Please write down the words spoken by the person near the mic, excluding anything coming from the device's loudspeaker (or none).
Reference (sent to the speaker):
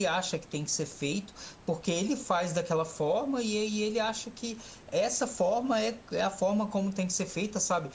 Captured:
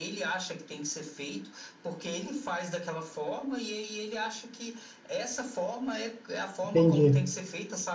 Entendi.